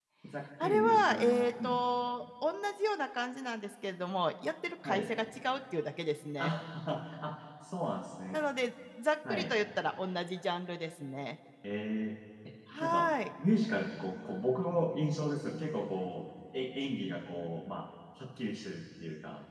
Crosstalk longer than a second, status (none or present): present